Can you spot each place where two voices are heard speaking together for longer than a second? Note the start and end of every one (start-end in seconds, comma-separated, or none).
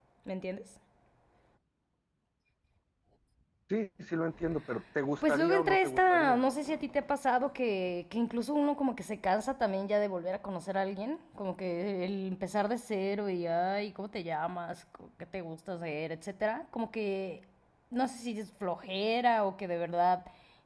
5.2-6.4